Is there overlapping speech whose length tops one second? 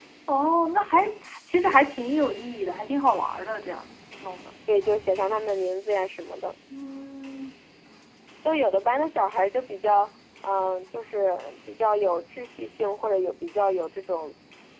No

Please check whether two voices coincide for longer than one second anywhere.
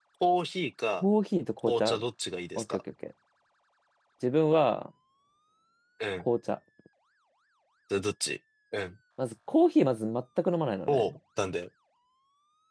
No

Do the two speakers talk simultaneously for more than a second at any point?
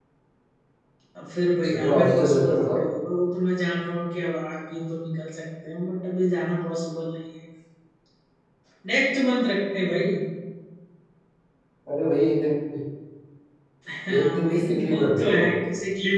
Yes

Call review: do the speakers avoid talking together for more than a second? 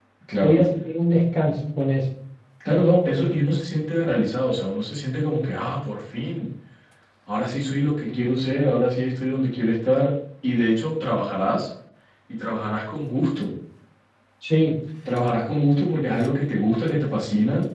Yes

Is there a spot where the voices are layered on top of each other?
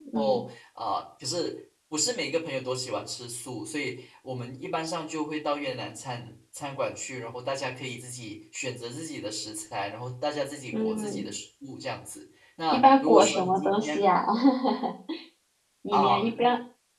Yes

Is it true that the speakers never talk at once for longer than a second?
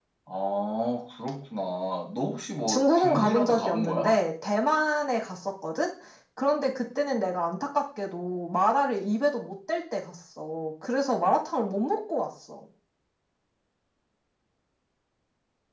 No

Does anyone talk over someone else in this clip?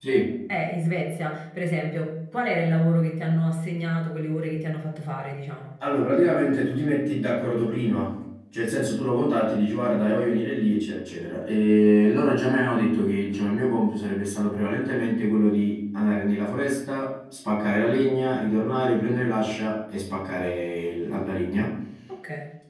No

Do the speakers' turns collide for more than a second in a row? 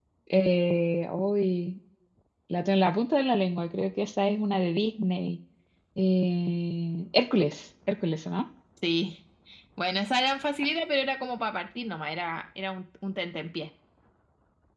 No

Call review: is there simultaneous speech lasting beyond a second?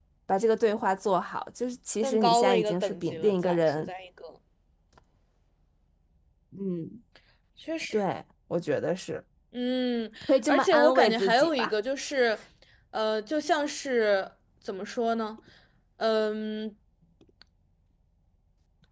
Yes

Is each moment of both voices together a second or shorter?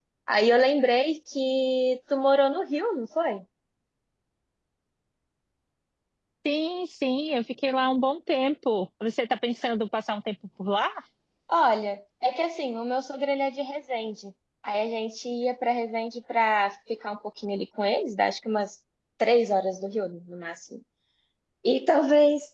Yes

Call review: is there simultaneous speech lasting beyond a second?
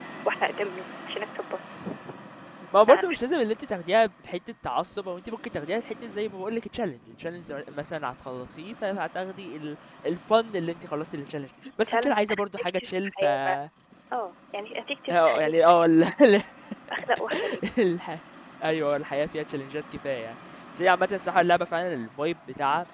Yes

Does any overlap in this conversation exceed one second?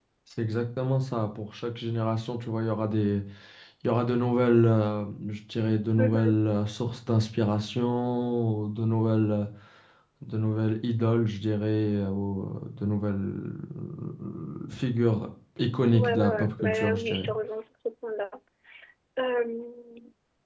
Yes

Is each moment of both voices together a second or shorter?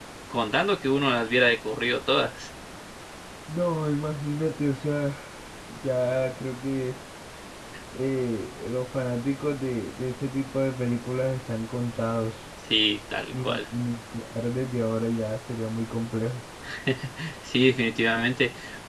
Yes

